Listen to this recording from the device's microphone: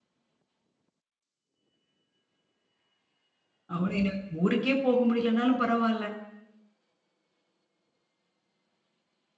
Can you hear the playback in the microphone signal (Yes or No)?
No